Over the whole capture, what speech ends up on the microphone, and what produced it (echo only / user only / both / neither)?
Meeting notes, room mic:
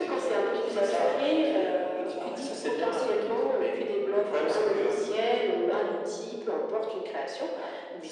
echo only